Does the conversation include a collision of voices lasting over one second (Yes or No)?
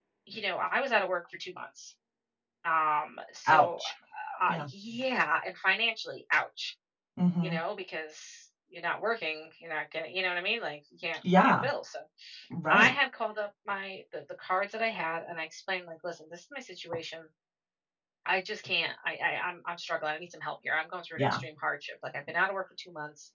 No